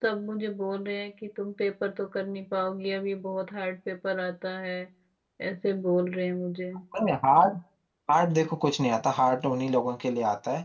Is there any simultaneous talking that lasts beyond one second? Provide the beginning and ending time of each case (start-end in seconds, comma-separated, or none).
none